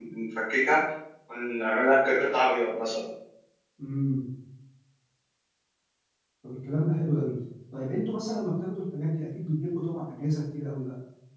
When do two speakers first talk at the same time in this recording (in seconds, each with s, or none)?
none